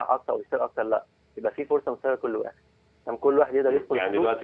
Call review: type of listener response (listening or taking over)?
taking over